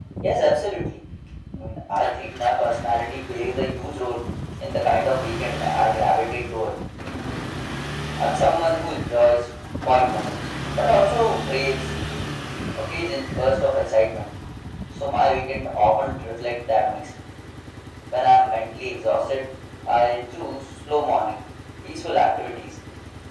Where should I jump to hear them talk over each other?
none

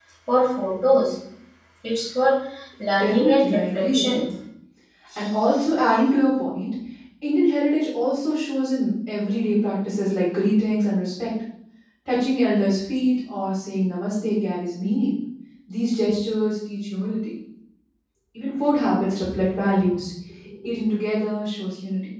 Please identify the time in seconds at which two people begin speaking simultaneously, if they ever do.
3 s

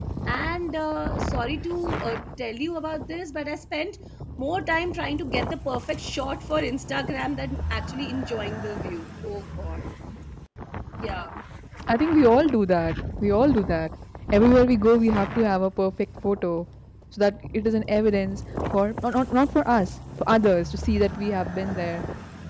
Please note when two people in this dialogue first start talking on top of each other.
none

